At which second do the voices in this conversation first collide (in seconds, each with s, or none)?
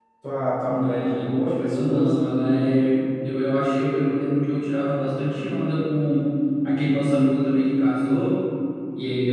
0.7 s